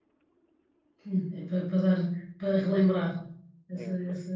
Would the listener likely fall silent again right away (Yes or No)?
Yes